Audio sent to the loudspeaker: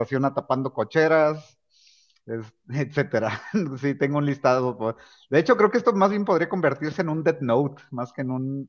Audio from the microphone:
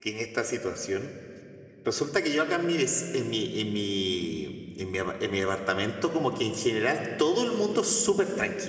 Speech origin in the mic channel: user only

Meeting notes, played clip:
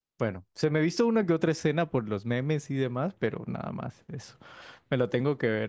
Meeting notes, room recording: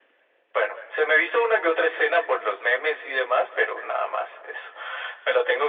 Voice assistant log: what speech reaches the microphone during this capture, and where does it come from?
echo only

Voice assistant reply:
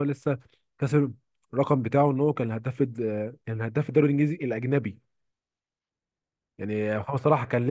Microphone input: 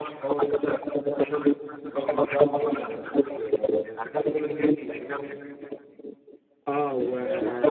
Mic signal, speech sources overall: both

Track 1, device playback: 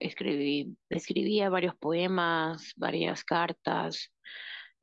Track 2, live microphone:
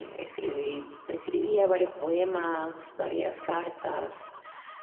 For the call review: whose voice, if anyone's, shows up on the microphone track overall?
echo only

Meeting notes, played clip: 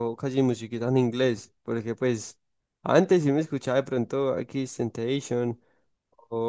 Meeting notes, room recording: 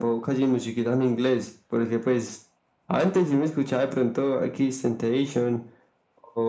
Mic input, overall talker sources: echo only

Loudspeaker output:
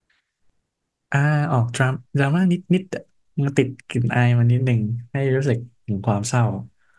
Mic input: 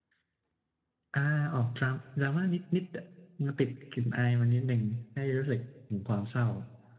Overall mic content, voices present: echo only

